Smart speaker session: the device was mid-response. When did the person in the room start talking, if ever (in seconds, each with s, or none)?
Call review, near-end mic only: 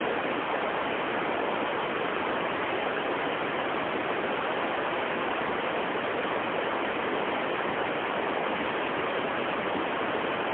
none